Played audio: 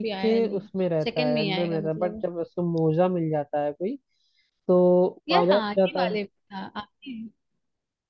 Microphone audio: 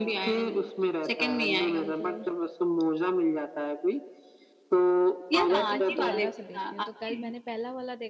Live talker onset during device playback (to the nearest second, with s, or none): 5 s